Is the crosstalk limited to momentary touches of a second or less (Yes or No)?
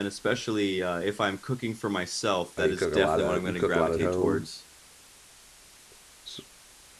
No